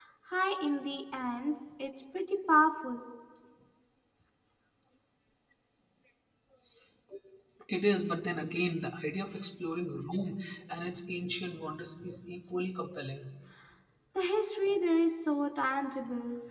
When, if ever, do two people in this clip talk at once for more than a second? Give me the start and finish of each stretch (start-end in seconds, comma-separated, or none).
none